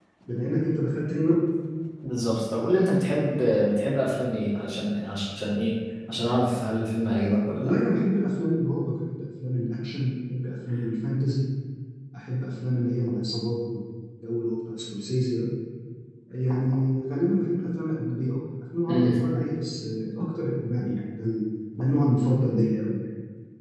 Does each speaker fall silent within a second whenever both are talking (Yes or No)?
Yes